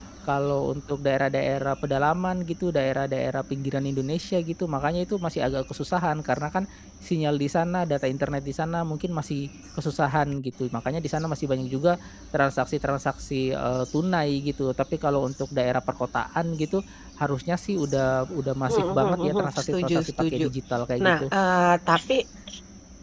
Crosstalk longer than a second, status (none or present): present